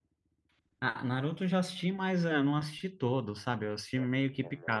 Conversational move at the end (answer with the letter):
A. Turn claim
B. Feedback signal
A